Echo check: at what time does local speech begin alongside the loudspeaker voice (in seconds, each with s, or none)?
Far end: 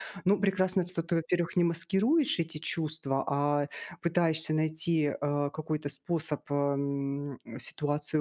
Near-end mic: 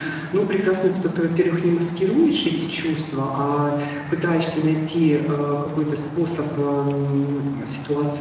none